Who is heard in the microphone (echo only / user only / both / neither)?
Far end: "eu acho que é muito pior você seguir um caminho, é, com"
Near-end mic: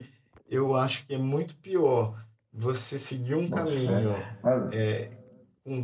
both